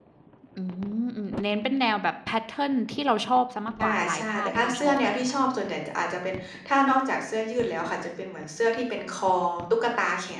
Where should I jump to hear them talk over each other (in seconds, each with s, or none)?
3.8 s